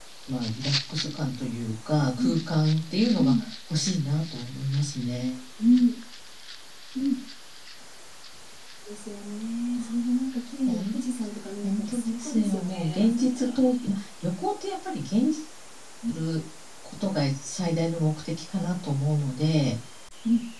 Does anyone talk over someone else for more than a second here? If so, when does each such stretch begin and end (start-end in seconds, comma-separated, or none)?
11.6-13.6